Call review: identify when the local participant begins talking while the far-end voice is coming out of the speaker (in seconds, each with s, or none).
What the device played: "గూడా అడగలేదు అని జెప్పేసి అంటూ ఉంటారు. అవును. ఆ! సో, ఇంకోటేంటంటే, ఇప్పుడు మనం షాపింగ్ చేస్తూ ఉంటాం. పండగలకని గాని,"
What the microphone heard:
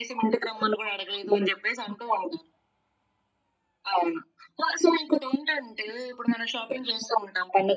none